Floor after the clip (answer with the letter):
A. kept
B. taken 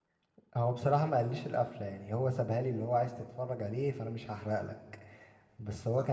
A